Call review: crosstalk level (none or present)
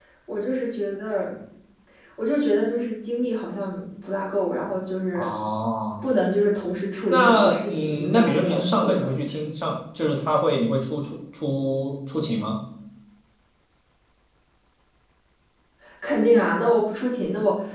present